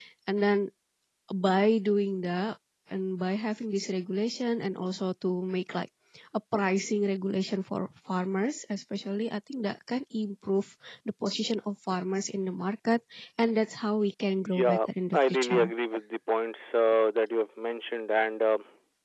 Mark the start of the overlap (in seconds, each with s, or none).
14.4 s